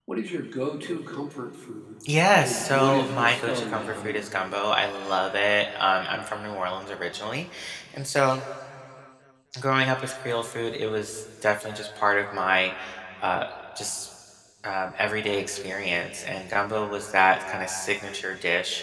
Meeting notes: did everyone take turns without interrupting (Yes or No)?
No